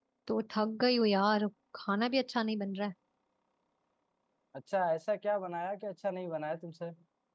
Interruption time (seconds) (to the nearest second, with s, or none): none